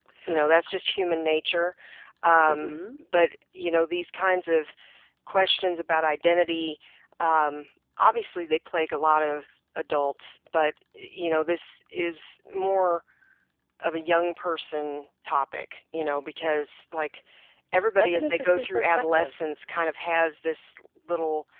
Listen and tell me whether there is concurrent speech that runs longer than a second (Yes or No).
Yes